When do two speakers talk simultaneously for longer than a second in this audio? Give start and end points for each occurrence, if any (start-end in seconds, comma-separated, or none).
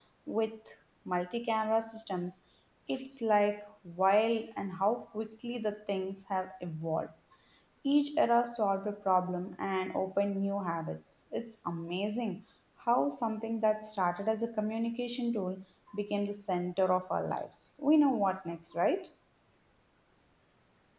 none